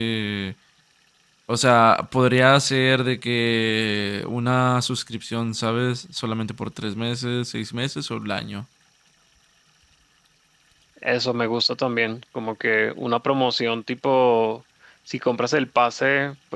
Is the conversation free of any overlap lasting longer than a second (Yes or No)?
Yes